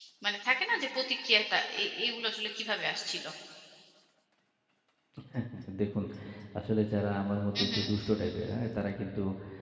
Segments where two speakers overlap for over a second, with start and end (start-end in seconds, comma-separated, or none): none